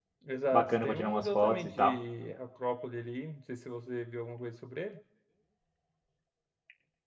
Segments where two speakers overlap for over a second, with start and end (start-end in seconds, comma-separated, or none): 0.5-2.0